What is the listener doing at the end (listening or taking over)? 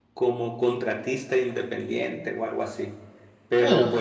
listening